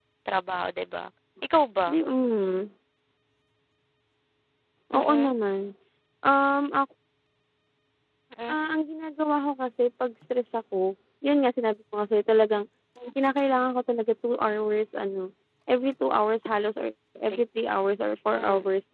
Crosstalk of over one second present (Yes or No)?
No